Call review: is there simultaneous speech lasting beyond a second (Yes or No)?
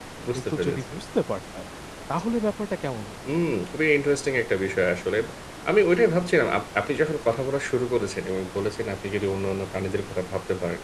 No